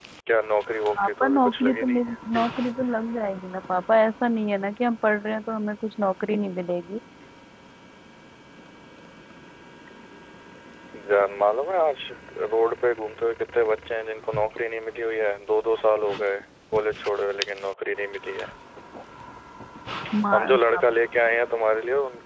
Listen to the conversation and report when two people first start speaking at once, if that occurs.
1.0 s

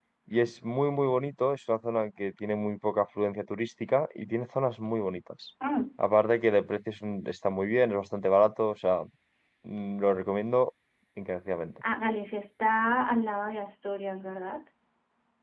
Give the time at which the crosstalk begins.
none

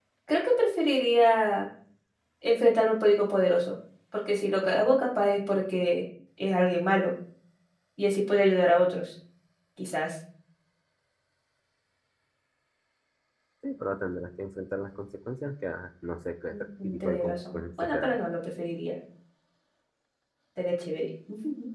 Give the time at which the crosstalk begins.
16.5 s

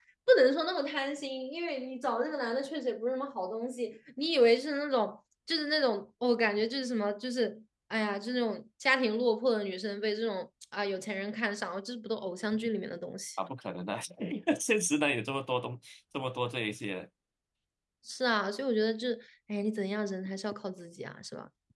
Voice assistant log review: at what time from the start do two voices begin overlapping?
none

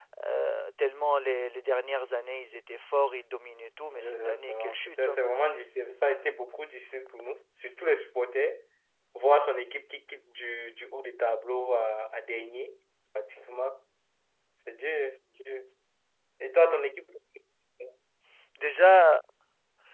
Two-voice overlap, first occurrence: 3.9 s

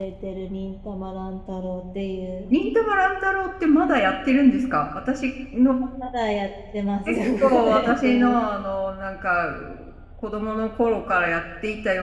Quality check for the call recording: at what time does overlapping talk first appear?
7.1 s

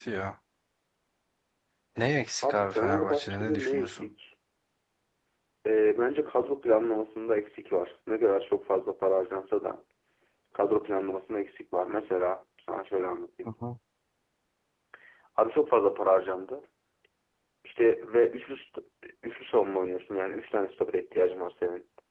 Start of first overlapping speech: 2.4 s

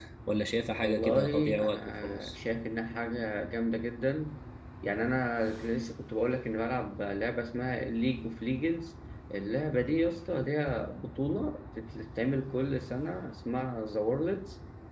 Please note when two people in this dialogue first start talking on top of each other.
0.8 s

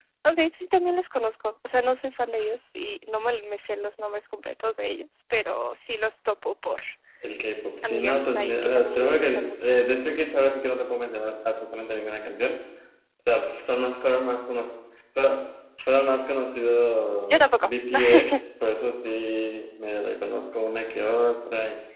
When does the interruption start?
7.8 s

